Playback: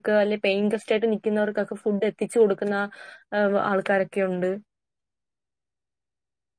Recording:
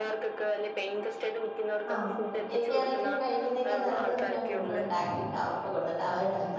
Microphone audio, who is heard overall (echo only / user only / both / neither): both